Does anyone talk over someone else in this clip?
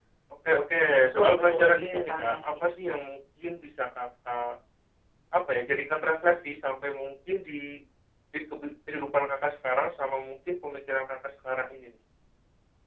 Yes, from 1.0 s

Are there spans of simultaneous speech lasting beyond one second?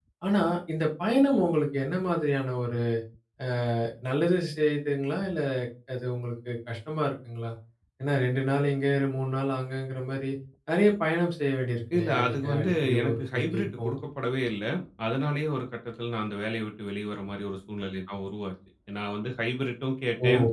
Yes, from 11.9 s

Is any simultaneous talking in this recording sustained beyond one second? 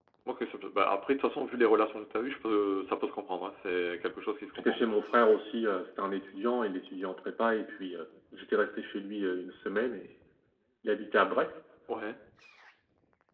No

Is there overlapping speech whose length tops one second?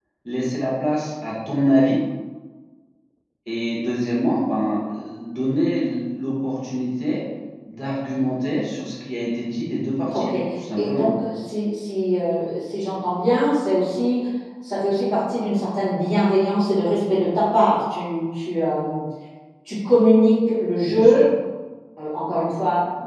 No

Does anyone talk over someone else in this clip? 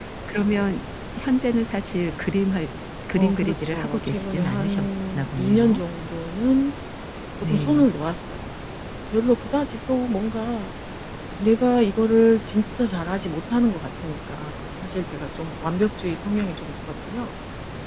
Yes, from 3.2 s

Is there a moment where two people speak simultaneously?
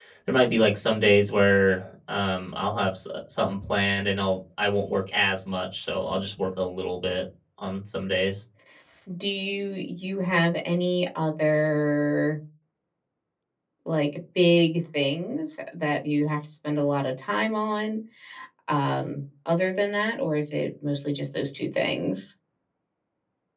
No

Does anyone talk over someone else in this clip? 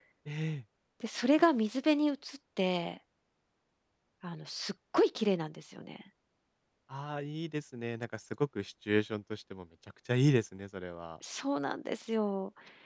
No

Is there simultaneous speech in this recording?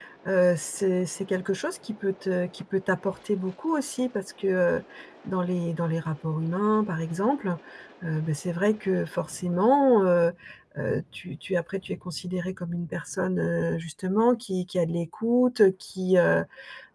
No

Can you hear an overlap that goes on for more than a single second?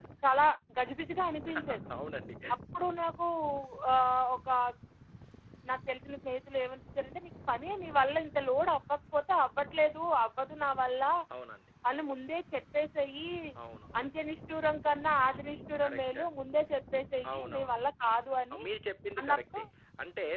No

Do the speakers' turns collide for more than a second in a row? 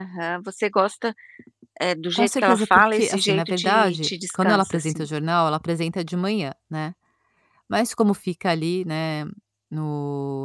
Yes, from 2.2 s

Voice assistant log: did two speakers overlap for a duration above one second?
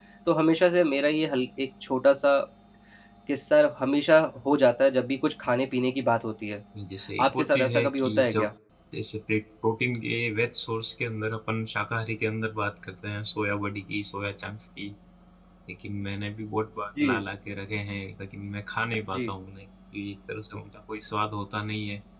Yes, from 7.2 s

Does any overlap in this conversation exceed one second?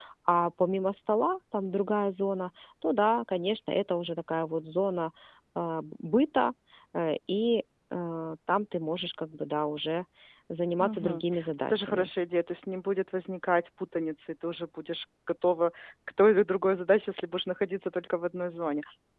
Yes, from 10.8 s

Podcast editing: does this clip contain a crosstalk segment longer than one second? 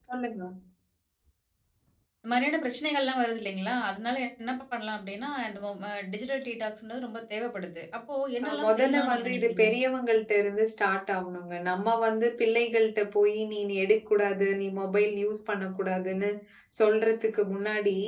Yes, from 8.4 s

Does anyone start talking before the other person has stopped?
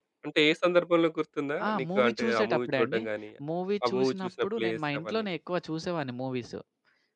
Yes, from 1.7 s

